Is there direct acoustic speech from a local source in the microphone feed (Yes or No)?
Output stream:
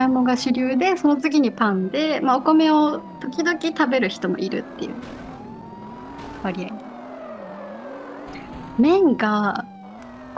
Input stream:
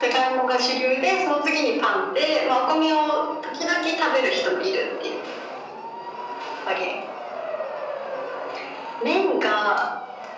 No